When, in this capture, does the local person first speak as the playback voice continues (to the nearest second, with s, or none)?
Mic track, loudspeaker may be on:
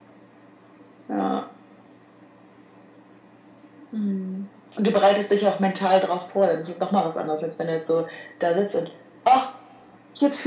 none